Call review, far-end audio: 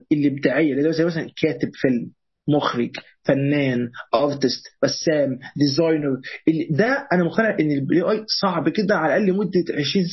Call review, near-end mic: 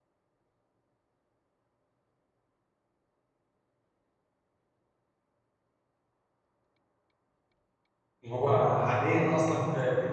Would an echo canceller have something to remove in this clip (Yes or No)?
No